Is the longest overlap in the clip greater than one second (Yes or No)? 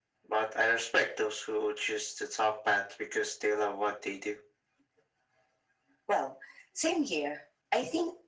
No